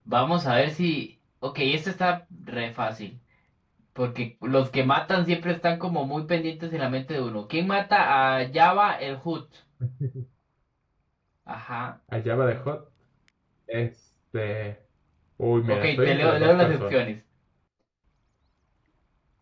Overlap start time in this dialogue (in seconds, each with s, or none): 15.7 s